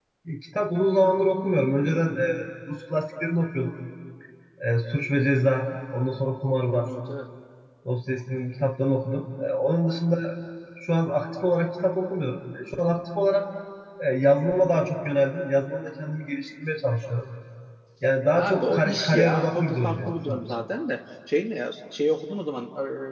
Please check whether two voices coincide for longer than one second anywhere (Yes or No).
Yes